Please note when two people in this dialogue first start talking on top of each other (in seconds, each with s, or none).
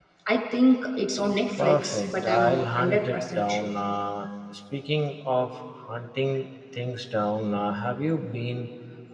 1.6 s